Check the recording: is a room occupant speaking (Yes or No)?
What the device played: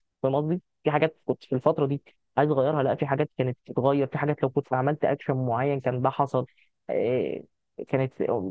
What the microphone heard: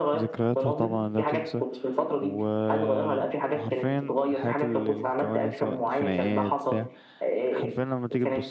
Yes